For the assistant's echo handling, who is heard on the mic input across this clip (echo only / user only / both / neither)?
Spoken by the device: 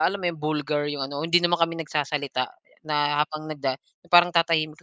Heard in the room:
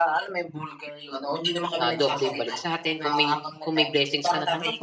both